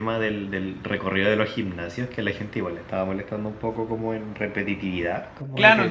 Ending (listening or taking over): taking over